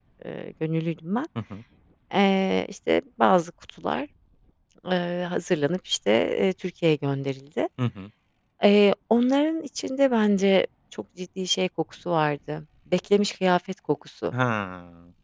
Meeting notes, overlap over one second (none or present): none